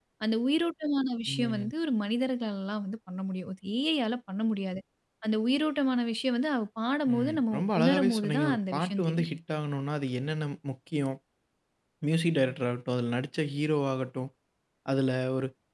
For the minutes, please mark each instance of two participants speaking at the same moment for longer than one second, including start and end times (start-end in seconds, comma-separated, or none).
7.1-9.3